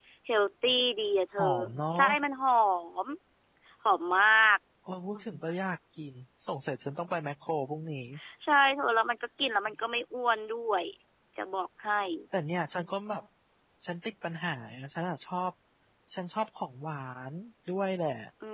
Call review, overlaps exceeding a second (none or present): none